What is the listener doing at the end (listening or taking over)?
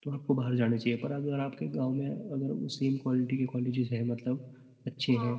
listening